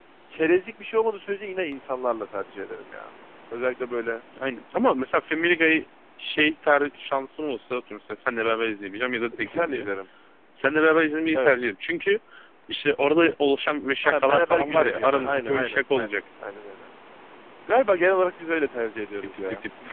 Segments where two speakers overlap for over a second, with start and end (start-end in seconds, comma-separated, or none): 14.0-16.2